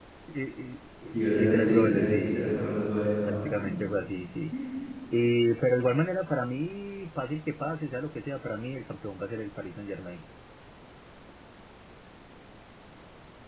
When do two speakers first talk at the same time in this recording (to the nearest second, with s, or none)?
1 s